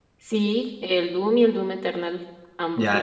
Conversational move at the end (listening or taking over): taking over